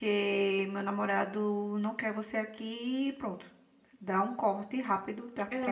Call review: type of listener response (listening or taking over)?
taking over